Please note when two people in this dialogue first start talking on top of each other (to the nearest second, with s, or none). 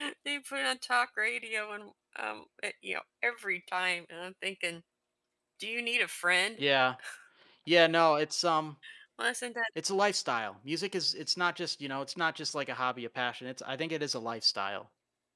none